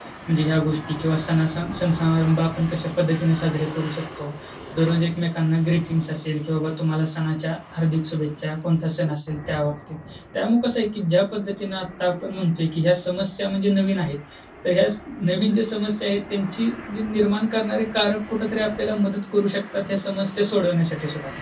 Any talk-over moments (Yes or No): No